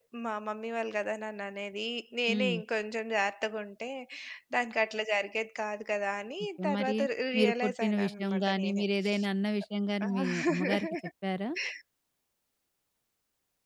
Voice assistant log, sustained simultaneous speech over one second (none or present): present